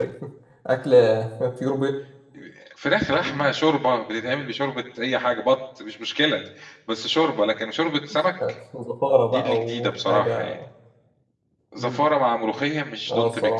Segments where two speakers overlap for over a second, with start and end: 9.3-10.5

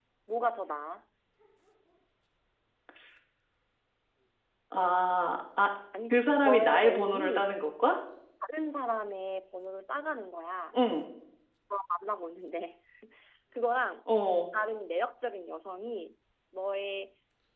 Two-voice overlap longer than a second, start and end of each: 6.1-7.5

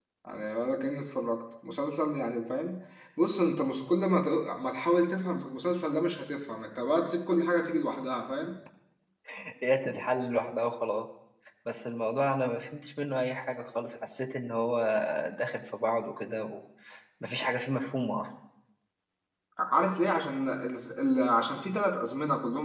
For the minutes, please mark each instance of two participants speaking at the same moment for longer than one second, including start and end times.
none

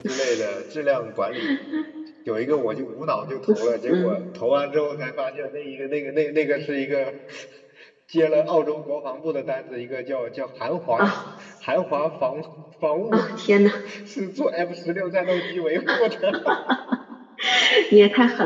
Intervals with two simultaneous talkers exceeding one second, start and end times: none

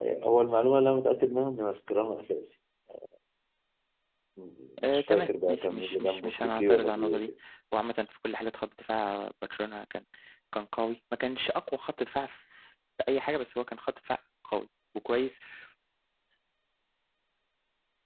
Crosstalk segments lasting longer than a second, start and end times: 4.8-7.3

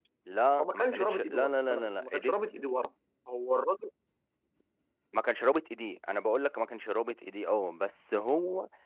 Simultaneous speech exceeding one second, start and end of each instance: 0.6-2.4

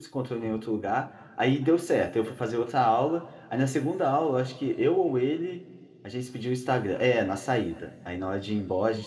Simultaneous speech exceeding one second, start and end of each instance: none

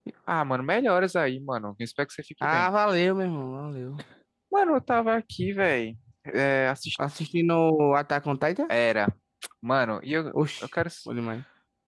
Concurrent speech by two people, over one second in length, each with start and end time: none

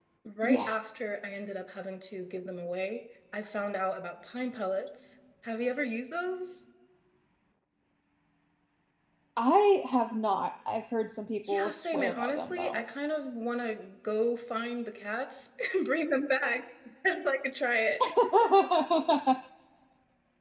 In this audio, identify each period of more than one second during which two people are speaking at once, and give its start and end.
11.5-12.8

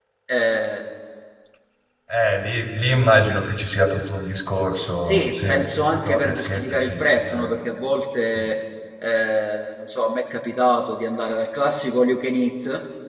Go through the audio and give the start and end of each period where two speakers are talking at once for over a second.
5.0-7.6

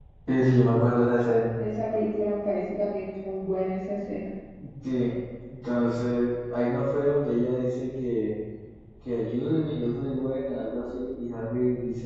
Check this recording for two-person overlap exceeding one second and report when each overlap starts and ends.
none

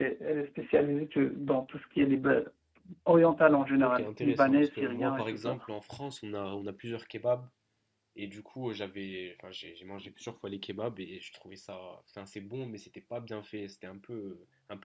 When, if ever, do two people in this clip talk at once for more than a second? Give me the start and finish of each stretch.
3.8-5.6

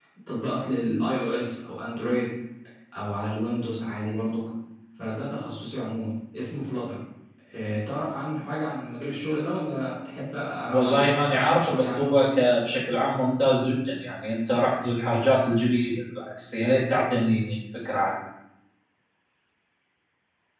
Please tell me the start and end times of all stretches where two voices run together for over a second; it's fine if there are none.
10.7-12.2

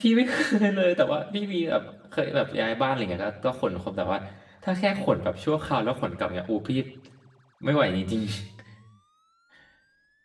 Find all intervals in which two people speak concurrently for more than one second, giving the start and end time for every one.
none

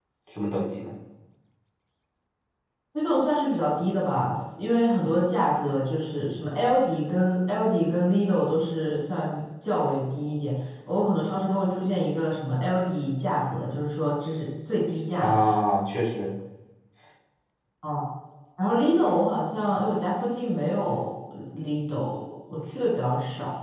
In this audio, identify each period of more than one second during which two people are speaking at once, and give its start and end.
none

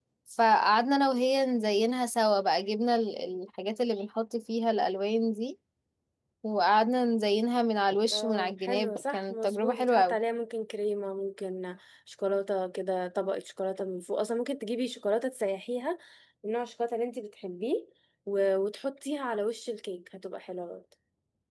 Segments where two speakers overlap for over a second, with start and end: 8.1-10.2

